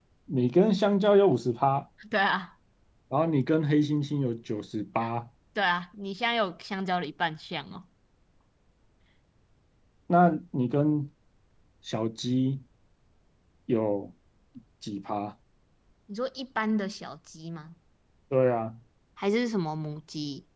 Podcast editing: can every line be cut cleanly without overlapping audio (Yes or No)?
Yes